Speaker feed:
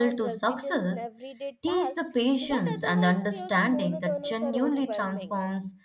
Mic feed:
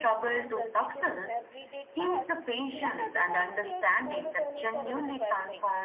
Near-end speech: none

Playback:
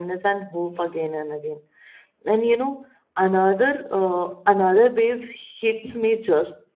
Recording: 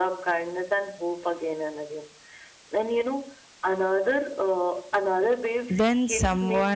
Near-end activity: present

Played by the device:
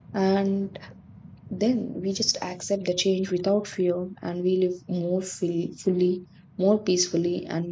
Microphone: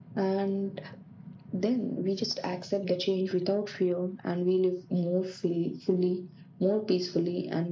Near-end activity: none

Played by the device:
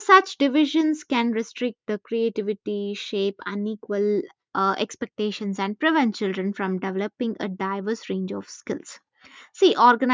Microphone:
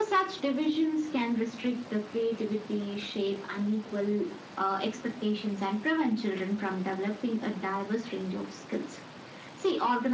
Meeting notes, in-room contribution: none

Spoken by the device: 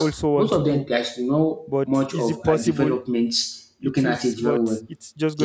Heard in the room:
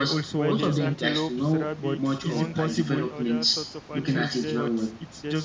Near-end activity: present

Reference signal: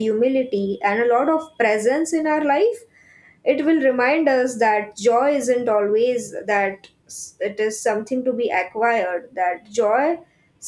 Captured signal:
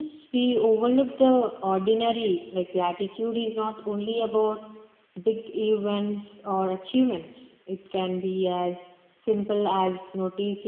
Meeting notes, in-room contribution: present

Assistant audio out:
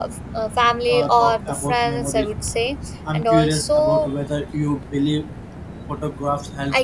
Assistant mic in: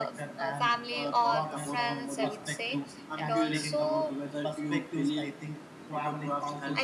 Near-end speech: present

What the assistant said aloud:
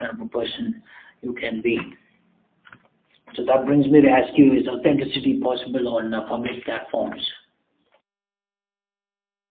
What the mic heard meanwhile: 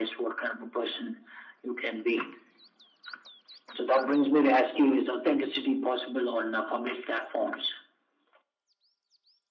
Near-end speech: none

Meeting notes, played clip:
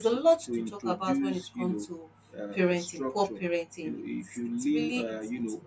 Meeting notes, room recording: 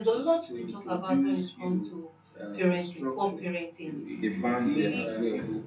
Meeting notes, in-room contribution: present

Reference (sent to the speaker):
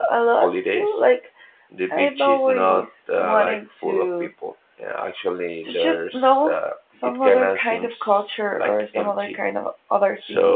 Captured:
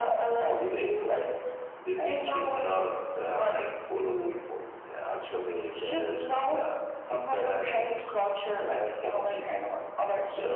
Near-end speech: none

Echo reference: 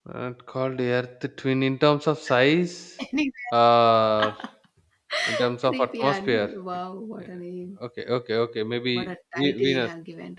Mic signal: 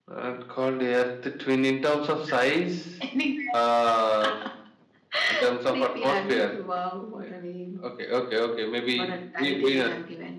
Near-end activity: none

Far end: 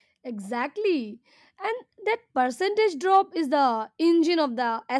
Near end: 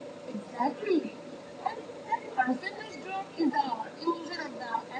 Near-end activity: none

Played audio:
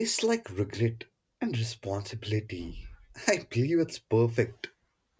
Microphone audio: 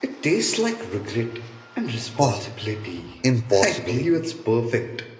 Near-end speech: present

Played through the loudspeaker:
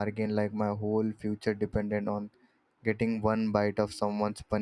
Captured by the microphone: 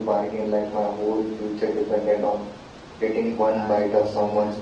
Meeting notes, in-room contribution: present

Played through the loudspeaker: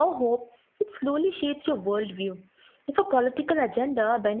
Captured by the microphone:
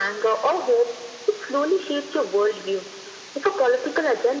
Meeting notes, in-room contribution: none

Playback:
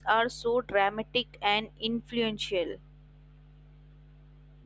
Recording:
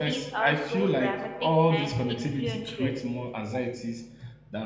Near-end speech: present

